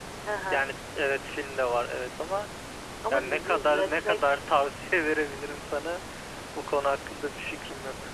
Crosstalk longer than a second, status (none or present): present